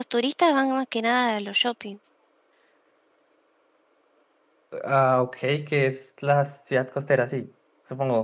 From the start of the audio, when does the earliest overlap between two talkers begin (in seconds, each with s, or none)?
none